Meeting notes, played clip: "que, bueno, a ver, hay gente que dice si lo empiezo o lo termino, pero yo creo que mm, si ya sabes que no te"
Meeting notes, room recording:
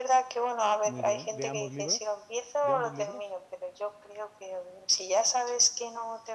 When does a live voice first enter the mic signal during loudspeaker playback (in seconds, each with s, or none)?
0.8 s